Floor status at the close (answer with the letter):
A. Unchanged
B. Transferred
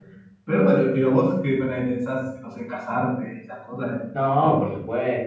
B